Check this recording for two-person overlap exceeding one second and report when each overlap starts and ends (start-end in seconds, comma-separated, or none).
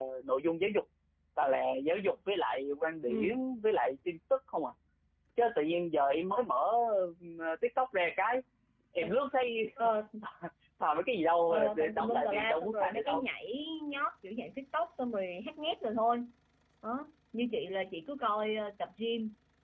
11.5-13.2